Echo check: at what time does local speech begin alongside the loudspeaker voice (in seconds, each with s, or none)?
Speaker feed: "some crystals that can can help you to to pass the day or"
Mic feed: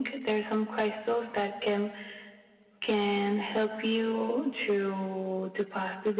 none